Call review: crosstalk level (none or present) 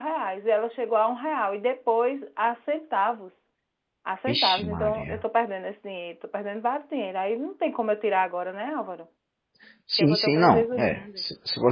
present